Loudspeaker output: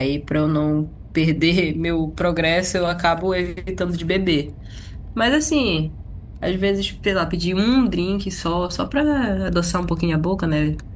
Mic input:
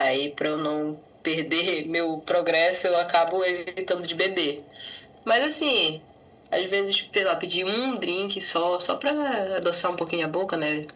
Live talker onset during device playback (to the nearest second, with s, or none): none